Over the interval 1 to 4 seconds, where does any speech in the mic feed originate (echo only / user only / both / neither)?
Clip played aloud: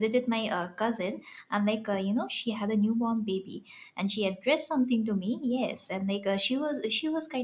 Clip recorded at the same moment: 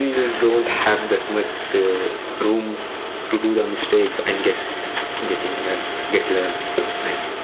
user only